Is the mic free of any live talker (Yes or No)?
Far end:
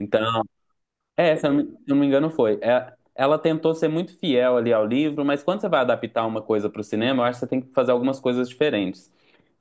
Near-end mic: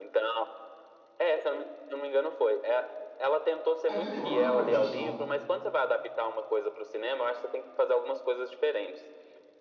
No